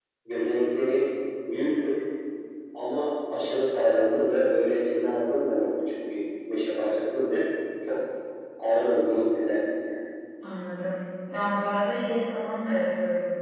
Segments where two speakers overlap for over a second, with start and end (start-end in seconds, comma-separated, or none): none